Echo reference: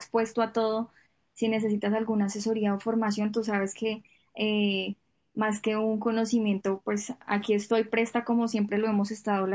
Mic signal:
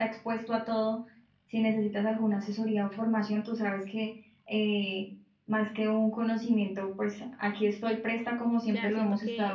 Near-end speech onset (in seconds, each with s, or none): 8.6 s